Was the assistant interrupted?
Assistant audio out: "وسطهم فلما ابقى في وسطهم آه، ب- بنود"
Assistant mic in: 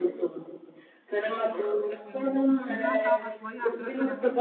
Yes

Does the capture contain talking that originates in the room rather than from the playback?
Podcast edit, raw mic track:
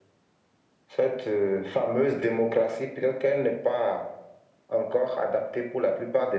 No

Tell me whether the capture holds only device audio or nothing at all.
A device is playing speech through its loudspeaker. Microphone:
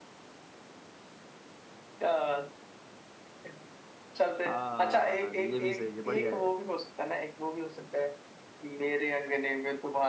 No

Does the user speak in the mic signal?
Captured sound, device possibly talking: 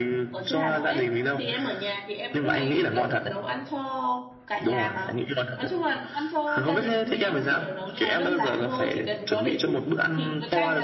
Yes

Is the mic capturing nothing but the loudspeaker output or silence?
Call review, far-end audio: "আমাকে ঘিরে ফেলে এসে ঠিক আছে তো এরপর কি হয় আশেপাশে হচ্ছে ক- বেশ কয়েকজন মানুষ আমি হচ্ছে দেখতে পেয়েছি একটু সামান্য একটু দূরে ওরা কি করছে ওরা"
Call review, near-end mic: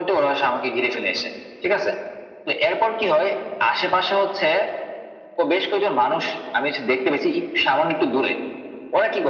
Yes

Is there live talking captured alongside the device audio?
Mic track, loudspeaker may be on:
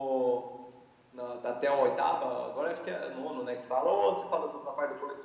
No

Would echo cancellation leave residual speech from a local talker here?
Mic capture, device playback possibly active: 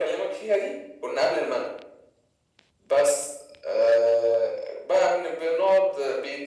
No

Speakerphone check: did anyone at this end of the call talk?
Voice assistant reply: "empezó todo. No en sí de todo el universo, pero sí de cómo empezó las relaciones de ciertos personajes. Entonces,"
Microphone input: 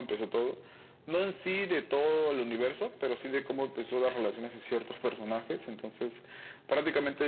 No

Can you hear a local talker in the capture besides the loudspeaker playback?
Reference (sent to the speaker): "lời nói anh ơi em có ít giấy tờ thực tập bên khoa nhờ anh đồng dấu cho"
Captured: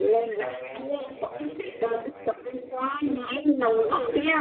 Yes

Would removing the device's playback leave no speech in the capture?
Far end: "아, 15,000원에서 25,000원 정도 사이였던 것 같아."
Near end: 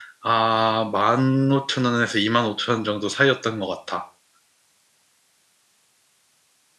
Yes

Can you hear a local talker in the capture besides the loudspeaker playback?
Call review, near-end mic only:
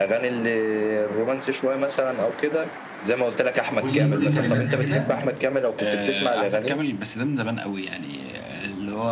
Yes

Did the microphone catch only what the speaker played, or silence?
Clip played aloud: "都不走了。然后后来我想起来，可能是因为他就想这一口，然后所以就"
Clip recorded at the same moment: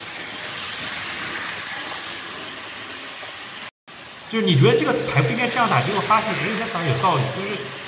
No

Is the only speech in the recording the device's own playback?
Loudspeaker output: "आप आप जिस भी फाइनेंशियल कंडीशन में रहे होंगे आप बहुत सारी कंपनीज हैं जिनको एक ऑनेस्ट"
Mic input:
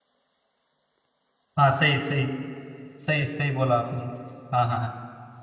No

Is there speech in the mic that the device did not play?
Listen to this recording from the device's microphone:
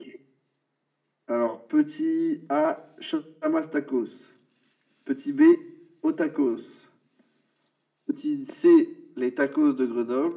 No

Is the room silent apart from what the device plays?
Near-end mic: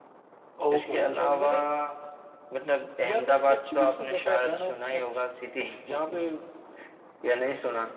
No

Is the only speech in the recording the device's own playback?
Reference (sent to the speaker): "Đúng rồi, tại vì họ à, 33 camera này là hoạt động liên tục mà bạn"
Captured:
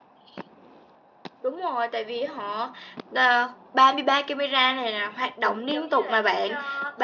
No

